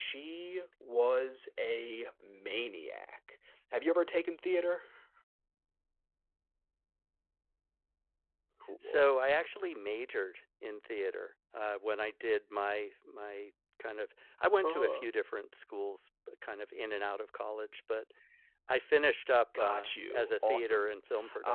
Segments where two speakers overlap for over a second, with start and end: 19.6-20.9

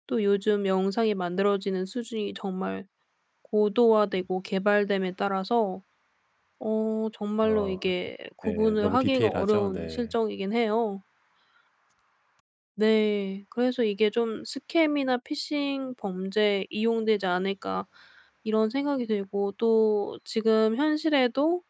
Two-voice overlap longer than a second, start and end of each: 8.5-10.0

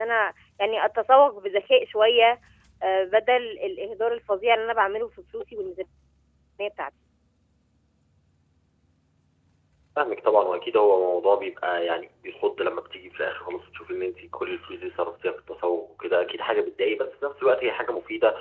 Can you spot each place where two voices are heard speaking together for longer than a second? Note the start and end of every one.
none

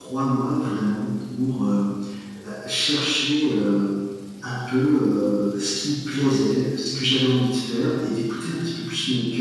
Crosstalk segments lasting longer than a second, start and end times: none

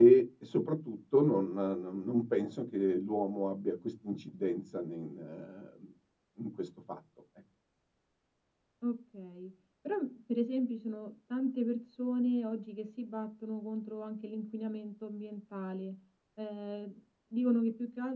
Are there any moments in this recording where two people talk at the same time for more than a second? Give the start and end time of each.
none

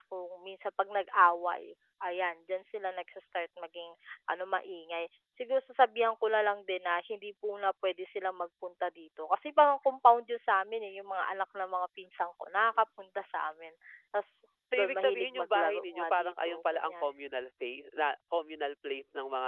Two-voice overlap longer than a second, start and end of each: 14.8-17.1

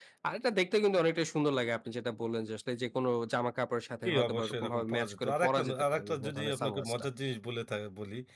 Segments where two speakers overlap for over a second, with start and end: 4.1-7.0

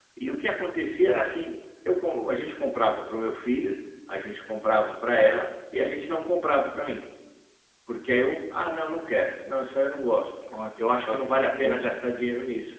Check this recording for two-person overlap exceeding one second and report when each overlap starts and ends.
10.8-12.0

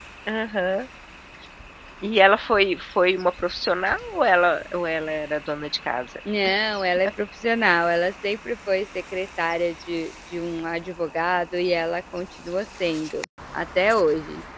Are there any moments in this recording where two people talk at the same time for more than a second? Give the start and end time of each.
none

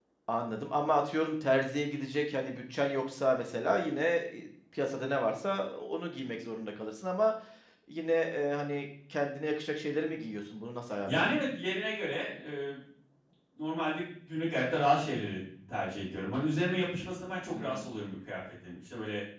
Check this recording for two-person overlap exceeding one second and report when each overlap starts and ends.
none

